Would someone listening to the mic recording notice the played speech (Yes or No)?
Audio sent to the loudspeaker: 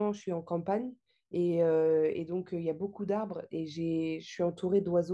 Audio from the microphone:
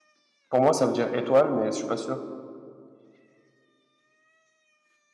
No